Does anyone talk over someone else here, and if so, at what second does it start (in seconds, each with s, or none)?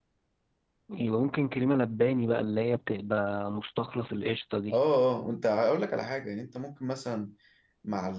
none